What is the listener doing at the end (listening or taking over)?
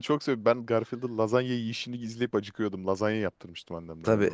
taking over